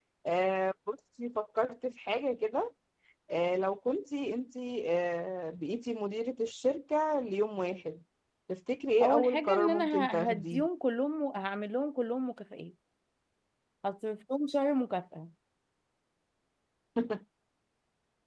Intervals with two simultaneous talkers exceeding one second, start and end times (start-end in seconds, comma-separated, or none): 9.0-10.7